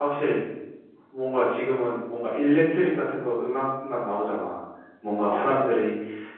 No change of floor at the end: Yes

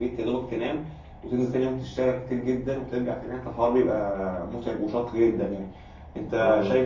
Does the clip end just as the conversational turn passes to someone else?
No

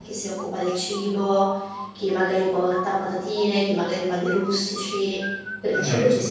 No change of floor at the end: No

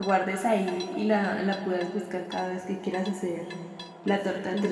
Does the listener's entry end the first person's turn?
Yes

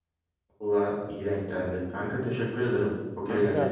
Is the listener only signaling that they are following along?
No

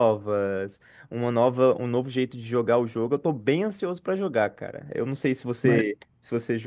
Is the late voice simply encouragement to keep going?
Yes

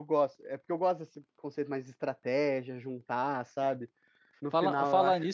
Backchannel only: No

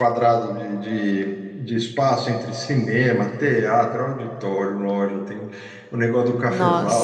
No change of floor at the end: Yes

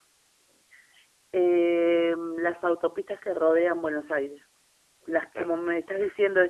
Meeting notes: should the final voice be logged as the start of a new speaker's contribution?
No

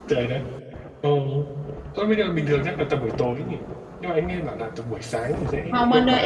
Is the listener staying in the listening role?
No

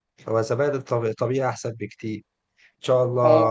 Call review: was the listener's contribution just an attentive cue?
Yes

